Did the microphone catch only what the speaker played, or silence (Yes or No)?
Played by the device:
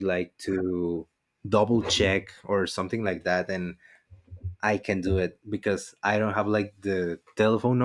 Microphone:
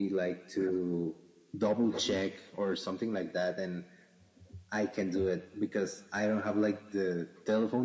Yes